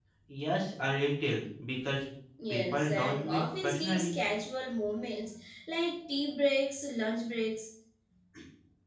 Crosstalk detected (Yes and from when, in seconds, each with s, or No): Yes, from 2.5 s